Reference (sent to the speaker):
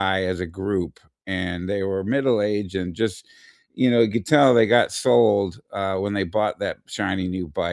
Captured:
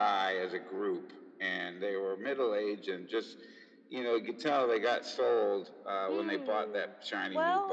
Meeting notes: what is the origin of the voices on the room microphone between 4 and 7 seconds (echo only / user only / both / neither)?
both